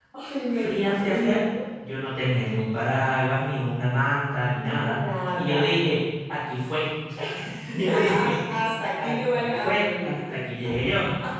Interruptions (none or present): present